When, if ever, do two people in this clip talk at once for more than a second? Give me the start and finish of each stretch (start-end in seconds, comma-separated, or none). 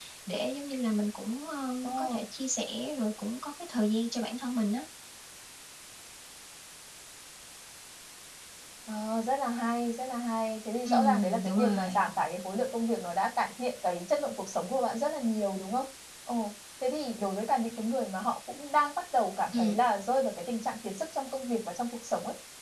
10.8-12.1